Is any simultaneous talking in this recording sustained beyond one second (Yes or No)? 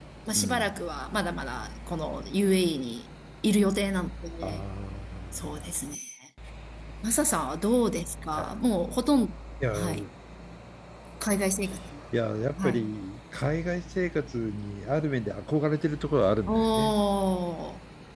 No